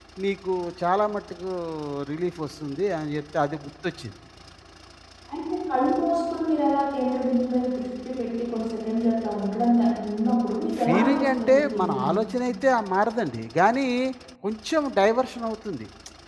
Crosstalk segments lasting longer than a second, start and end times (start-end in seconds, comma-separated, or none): 10.8-12.1